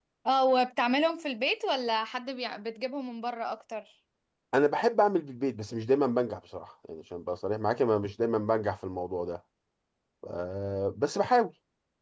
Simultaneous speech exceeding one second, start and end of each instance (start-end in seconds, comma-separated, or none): none